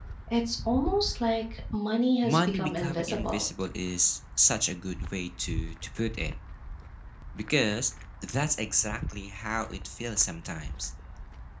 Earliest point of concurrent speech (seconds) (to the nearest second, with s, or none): 2 s